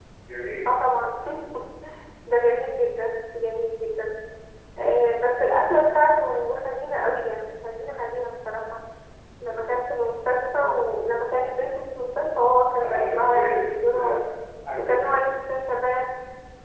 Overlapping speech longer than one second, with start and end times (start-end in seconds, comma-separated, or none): 12.8-14.2